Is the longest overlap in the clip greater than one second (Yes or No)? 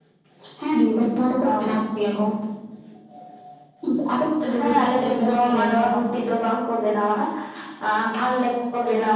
Yes